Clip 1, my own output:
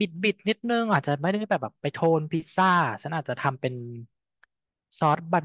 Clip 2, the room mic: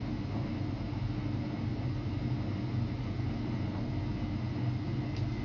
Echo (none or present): none